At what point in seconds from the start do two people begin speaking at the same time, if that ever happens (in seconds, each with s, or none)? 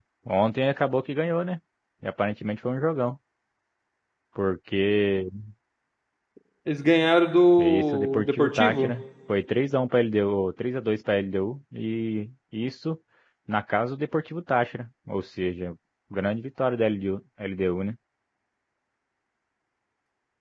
7.6 s